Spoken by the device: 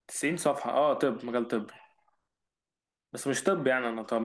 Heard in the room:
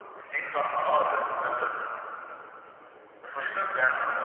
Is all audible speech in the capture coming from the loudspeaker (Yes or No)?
Yes